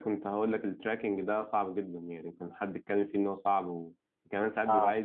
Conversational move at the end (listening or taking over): listening